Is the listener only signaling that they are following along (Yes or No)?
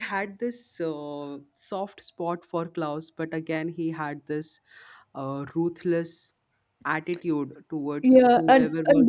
No